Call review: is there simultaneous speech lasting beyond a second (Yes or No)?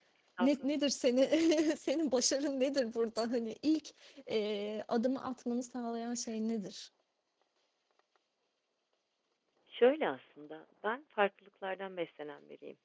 No